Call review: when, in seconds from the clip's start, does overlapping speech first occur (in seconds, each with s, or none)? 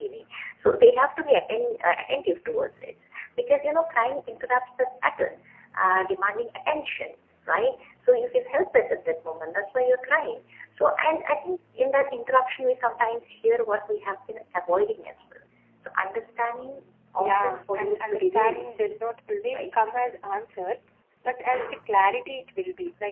17.2 s